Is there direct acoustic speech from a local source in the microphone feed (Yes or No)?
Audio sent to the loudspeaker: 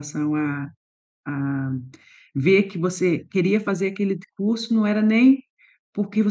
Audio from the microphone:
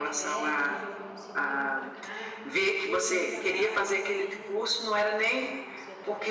Yes